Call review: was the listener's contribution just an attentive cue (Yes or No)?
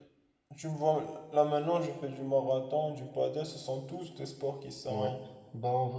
No